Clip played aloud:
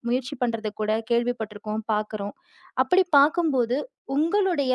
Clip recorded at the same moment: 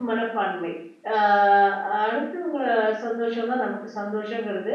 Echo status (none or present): none